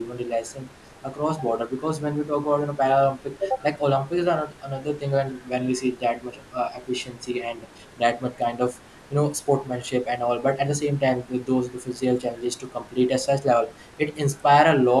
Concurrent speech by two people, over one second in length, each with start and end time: none

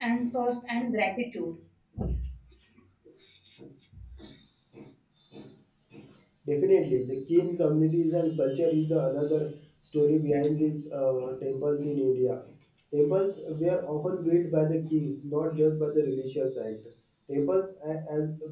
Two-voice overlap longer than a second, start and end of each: none

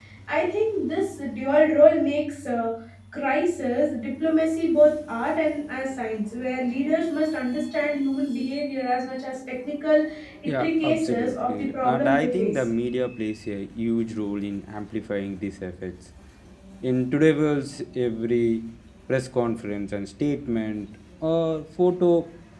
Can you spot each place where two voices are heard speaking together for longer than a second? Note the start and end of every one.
10.6-12.6

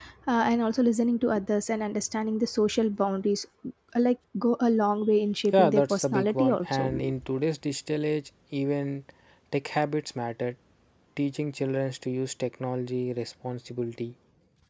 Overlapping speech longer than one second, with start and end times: 5.5-6.9

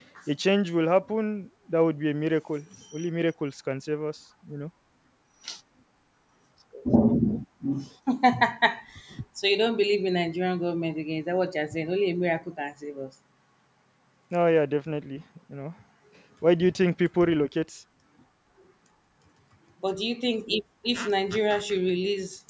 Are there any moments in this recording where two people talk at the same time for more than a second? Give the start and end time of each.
none

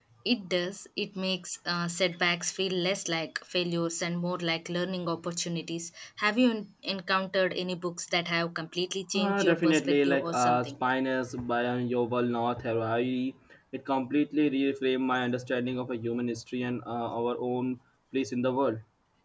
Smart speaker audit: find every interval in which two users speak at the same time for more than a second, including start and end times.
9.2-10.7

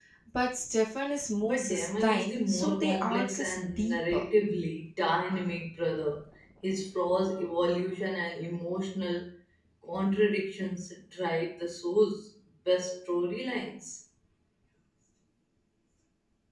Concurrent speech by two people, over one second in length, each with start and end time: 1.5-4.3

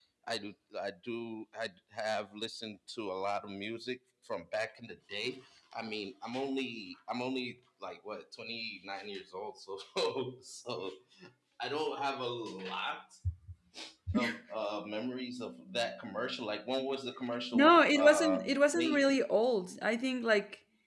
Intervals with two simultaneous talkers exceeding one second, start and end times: 17.5-19.0

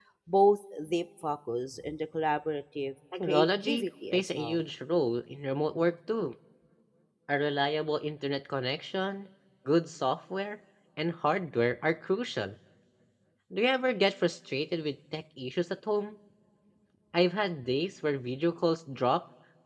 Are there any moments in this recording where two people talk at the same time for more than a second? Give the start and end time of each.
3.3-4.6

